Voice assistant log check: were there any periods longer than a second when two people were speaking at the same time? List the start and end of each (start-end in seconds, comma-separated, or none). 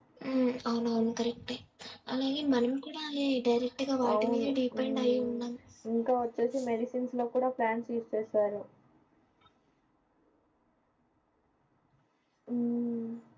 4.1-5.4